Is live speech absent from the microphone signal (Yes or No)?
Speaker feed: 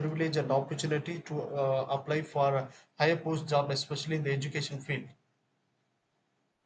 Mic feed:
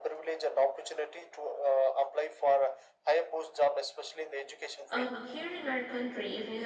No